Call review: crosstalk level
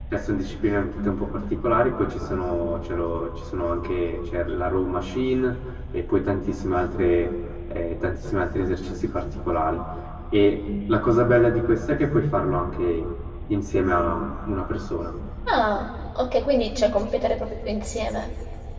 none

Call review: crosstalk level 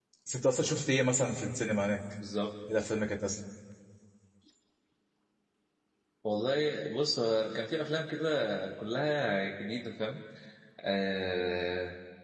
none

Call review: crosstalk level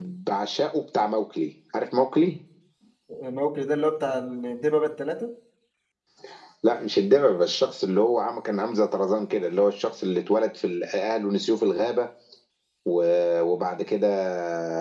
none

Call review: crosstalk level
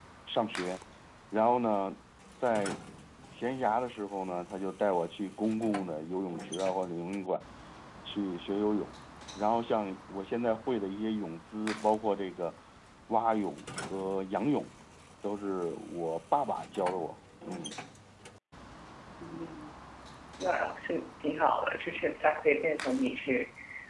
none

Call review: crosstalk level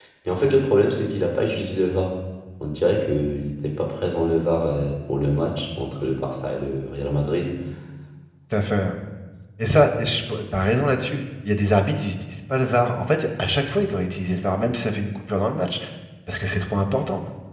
none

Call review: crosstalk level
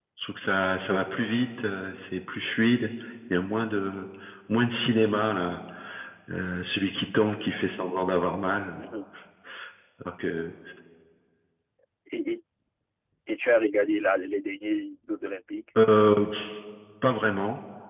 none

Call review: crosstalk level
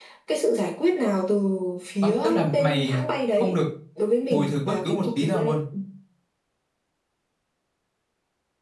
present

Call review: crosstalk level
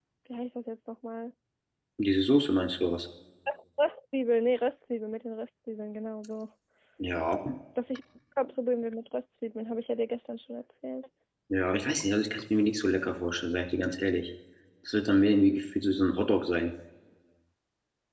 none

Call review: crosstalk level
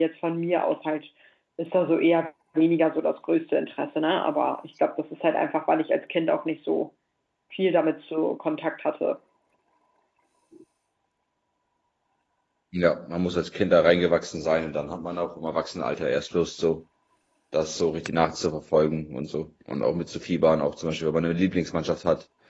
none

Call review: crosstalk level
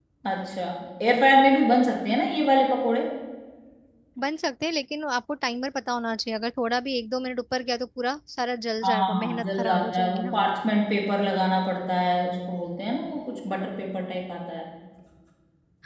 present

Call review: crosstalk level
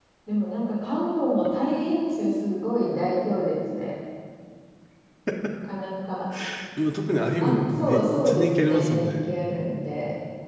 present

